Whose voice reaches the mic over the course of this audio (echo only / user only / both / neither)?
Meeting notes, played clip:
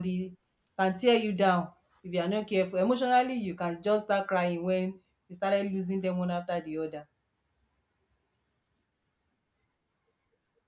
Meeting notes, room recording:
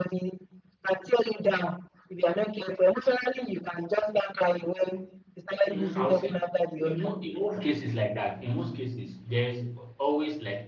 both